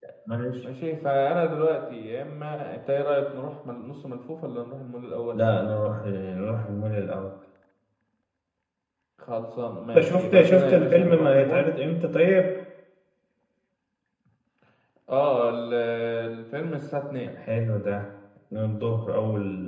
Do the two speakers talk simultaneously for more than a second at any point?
Yes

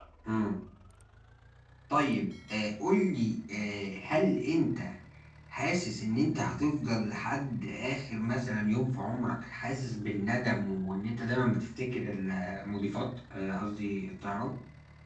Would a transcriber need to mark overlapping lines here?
No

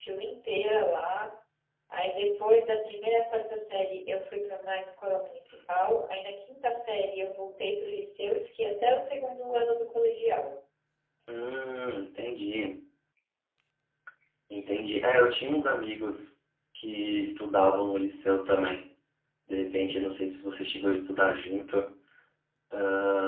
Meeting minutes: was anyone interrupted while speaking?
No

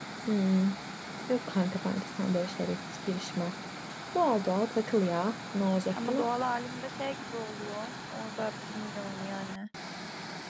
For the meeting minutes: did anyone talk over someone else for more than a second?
No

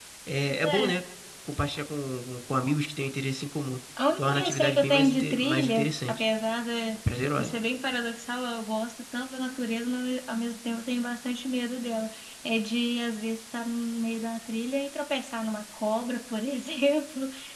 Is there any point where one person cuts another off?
Yes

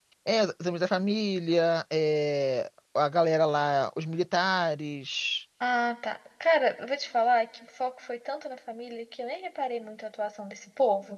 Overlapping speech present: No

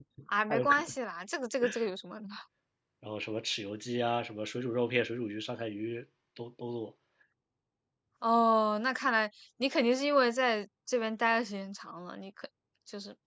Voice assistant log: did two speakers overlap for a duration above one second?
No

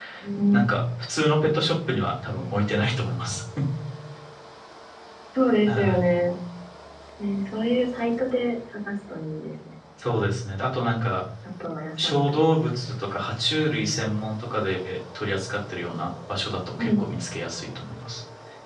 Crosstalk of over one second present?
No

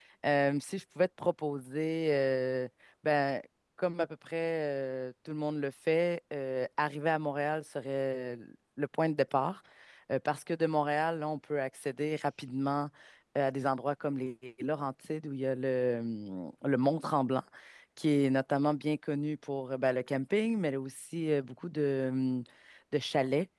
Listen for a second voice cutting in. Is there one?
No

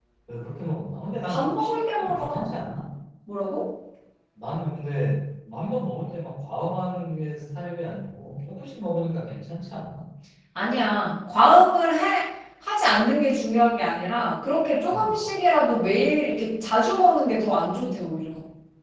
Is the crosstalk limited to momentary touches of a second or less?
No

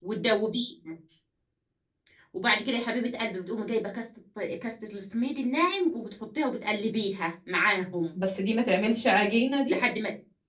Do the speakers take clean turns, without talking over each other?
Yes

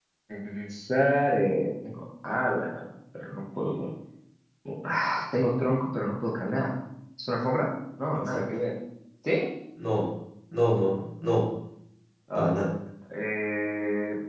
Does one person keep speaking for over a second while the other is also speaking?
No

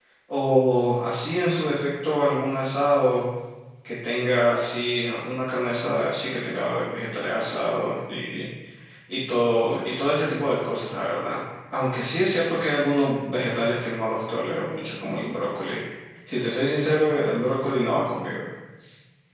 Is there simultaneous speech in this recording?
No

